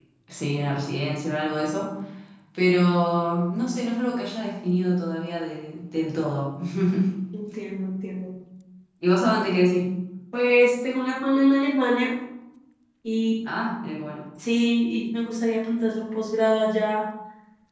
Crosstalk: none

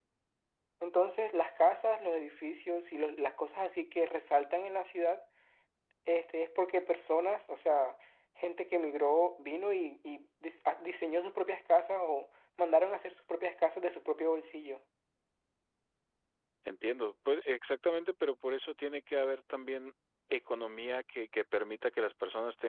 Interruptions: none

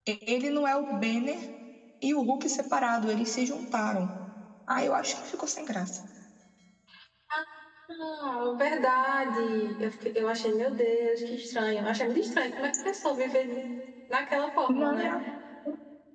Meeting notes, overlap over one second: none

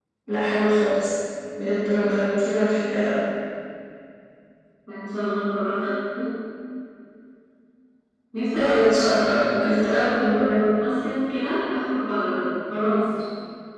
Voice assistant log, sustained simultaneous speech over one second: present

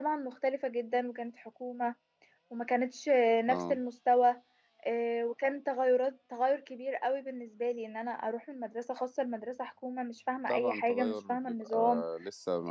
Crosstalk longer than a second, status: present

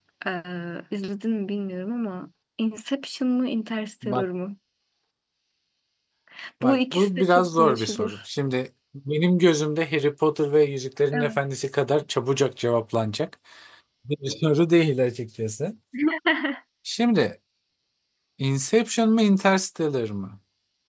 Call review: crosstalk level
present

